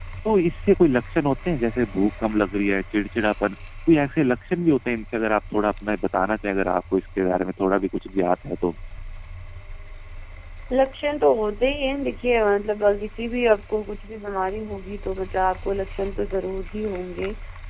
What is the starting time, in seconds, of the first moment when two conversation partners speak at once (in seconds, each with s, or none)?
none